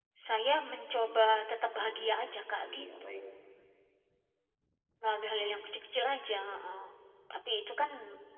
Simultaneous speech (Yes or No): Yes